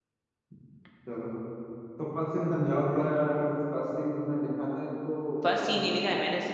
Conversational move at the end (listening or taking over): taking over